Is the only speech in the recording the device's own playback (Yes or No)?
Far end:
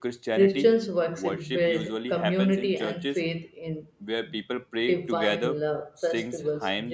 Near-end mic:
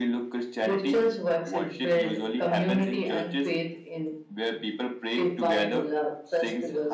Yes